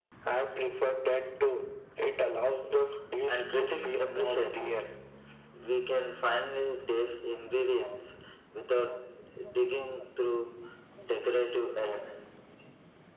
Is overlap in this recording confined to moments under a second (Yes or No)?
No